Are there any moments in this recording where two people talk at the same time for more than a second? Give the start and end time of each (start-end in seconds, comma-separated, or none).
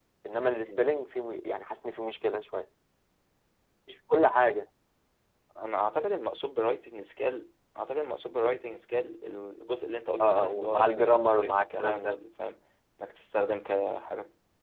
10.2-12.2